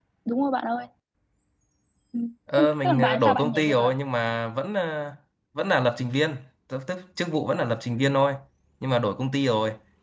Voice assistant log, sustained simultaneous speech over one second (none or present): present